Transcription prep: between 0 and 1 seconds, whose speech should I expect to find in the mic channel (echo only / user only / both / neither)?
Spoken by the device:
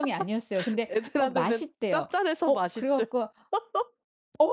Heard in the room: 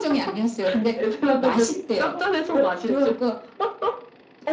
echo only